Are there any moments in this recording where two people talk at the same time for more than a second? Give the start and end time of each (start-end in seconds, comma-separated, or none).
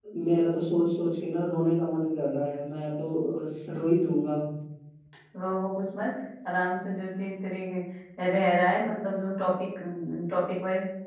none